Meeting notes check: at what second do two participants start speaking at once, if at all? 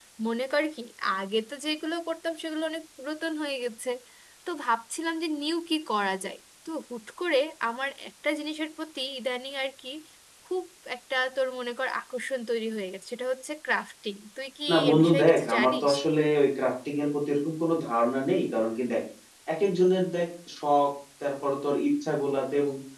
14.7 s

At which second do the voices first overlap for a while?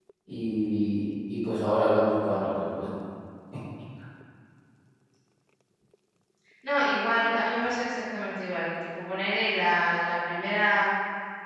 none

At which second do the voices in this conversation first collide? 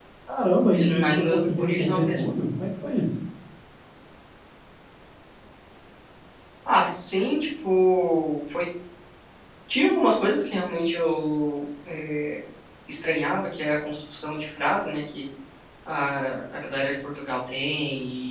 0.7 s

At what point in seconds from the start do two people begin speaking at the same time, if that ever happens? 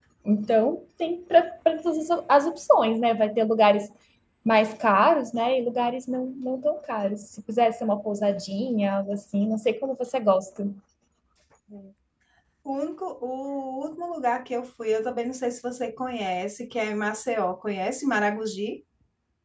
none

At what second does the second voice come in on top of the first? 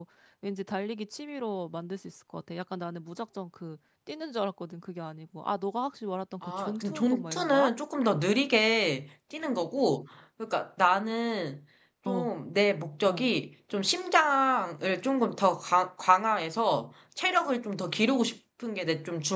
6.4 s

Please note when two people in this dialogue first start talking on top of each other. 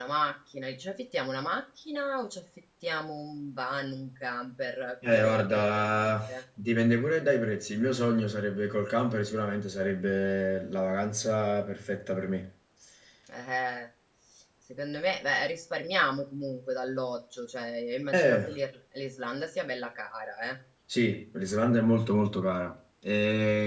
5.0 s

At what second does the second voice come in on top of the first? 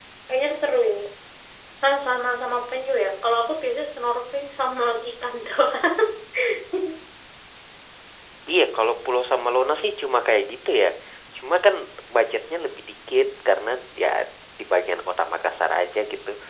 none

